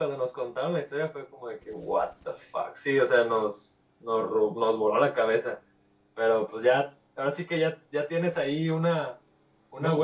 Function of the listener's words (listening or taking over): taking over